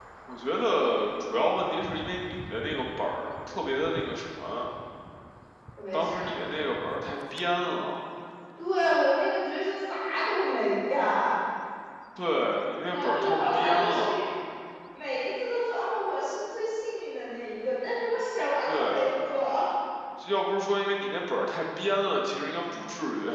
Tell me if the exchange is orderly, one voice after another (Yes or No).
No